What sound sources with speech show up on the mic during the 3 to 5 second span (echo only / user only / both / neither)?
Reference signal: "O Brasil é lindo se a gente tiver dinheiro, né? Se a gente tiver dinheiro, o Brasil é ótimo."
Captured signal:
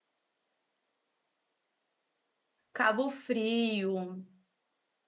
user only